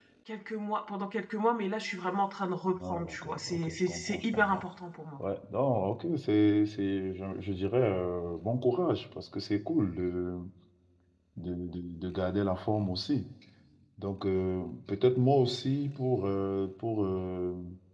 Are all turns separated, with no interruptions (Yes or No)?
No